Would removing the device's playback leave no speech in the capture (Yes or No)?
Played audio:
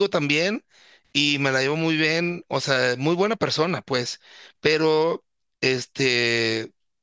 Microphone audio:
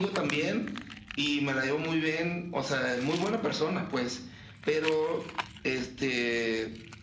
Yes